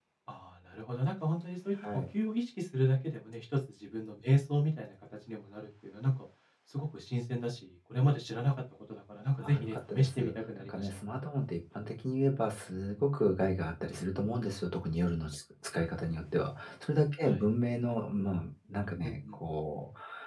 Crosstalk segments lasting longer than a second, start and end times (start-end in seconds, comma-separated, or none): 9.4-10.9